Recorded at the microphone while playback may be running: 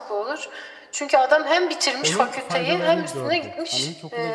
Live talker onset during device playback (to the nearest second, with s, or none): 2 s